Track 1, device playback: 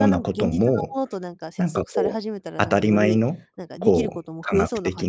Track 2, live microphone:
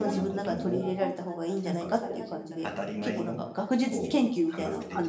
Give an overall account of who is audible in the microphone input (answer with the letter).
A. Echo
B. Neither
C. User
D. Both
D